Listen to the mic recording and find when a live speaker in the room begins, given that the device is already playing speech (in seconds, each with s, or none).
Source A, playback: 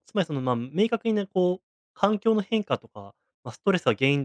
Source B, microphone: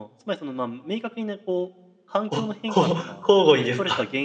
2.3 s